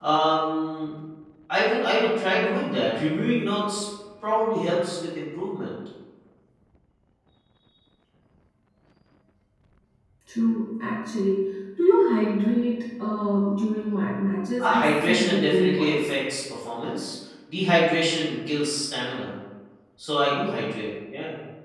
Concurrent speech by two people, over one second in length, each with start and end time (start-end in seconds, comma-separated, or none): 14.6-16.1